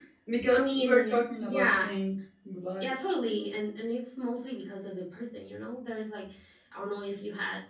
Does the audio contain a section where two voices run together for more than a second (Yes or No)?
Yes